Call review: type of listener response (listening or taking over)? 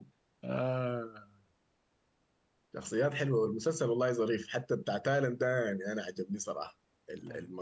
listening